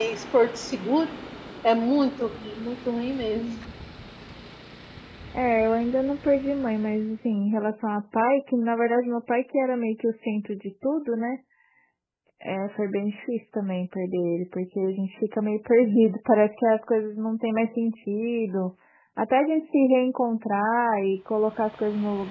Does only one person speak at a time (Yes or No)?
Yes